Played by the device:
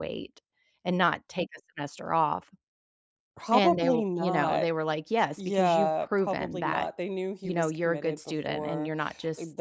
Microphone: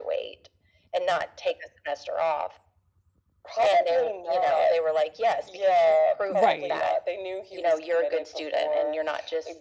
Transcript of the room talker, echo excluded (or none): Right,